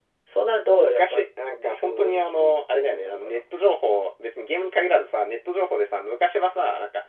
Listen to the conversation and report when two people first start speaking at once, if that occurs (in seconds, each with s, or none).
0.7 s